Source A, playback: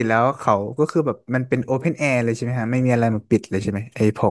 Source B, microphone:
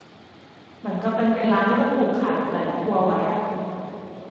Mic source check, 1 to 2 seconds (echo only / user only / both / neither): user only